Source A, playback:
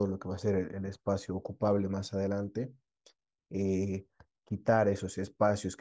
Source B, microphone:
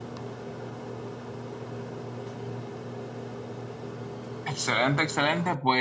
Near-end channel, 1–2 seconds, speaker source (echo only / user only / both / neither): neither